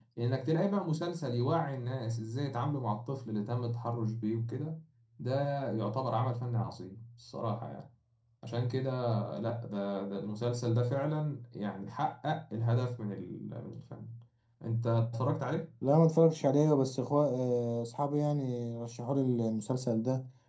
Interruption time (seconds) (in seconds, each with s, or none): none